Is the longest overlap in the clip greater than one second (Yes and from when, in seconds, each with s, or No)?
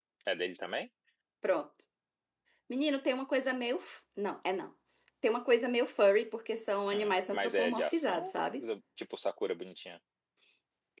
Yes, from 6.9 s